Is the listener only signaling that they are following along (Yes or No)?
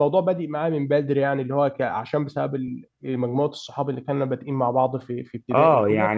No